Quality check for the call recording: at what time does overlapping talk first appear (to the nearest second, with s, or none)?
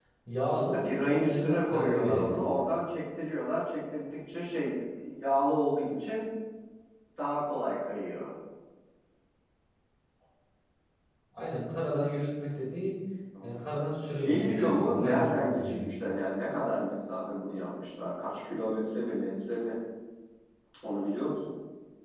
1 s